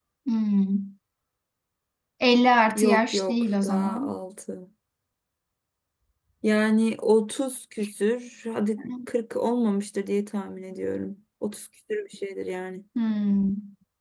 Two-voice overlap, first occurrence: 2.8 s

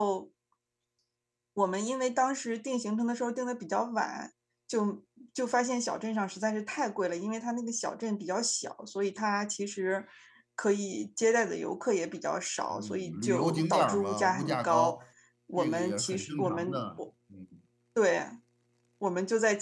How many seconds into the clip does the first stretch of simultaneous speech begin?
12.7 s

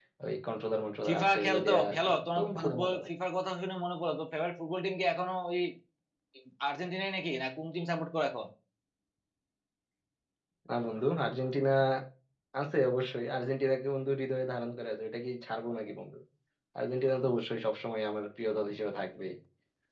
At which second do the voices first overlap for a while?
1.1 s

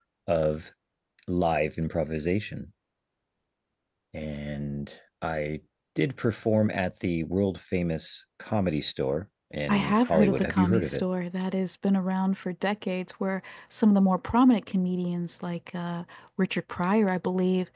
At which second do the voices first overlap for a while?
9.7 s

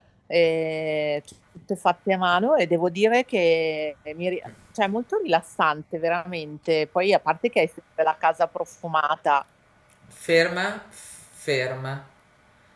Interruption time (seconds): none

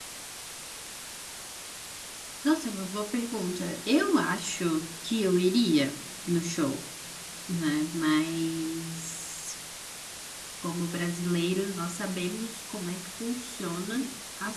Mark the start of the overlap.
none

